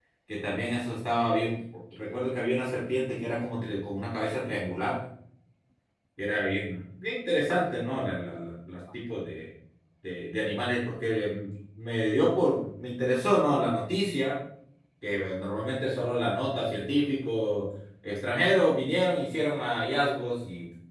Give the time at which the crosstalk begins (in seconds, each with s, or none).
none